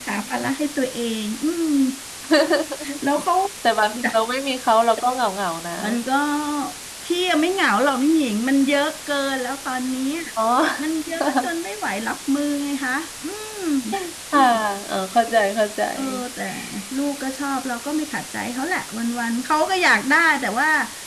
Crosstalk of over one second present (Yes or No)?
No